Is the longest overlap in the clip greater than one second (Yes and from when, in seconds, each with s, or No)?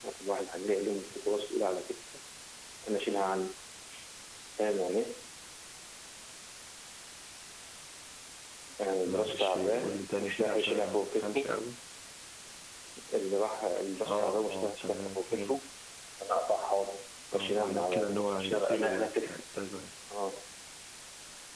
Yes, from 9.1 s